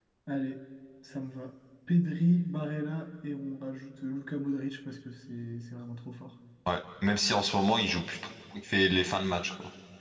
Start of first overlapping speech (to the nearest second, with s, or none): none